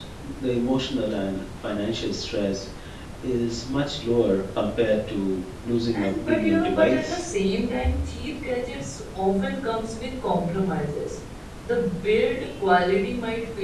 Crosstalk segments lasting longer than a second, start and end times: 6.0-7.2

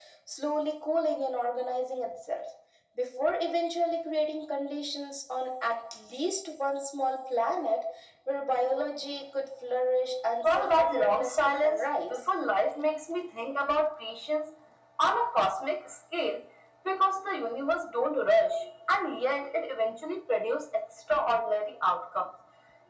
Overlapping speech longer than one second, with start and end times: 10.4-12.2

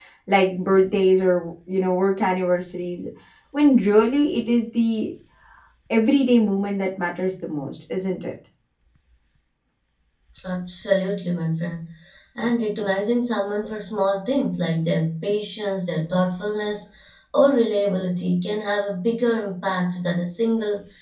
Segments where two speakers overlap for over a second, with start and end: none

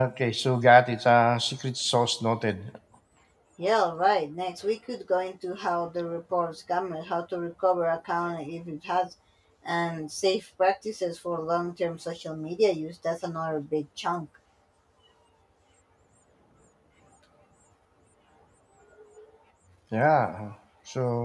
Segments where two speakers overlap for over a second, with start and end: none

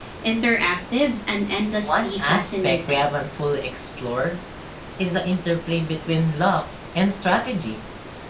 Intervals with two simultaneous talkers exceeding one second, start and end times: 1.8-3.1

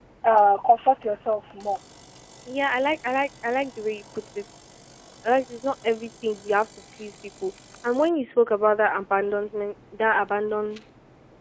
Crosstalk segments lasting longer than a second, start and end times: none

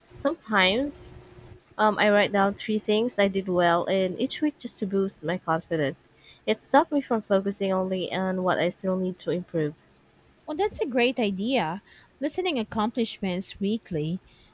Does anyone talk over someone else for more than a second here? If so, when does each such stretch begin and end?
none

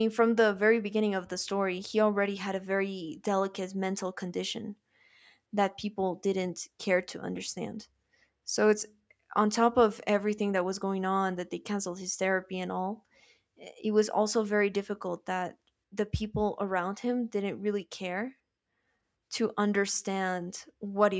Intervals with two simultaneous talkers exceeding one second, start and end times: none

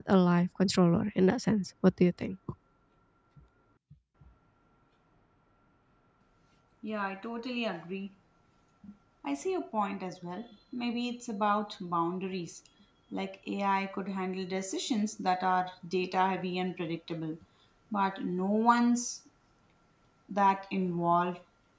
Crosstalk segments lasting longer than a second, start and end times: none

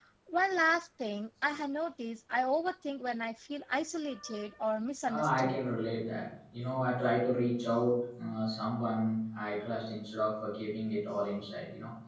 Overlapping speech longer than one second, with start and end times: none

